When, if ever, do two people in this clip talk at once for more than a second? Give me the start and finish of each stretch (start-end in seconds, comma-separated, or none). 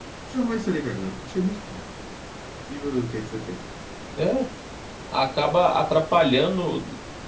none